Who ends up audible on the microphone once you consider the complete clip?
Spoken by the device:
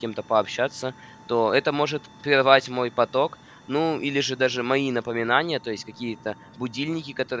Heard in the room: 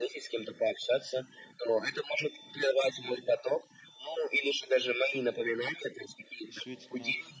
both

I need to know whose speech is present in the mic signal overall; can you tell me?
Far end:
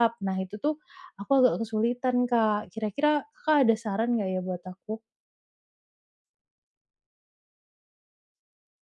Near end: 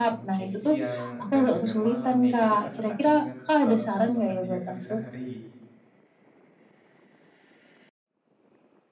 both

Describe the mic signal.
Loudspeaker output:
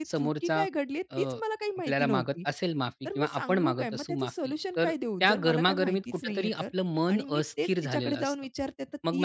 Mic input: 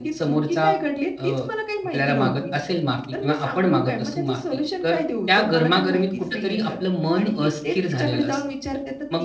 echo only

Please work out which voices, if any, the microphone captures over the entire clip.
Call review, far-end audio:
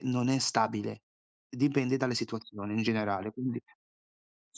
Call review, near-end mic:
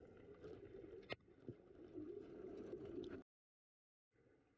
neither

